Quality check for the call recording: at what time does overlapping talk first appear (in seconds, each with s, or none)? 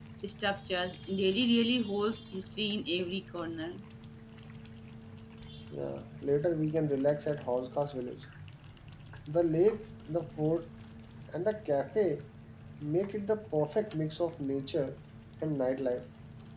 none